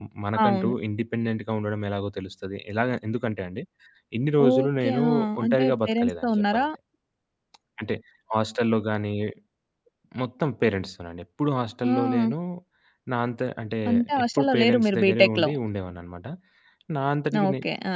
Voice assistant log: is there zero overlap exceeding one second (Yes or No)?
No